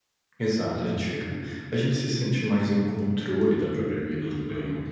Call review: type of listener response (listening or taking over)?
taking over